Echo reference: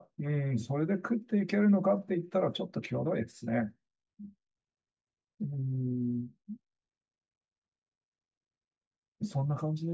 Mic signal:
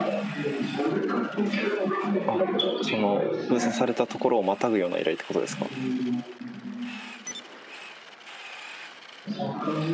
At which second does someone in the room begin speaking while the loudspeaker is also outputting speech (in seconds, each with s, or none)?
2.3 s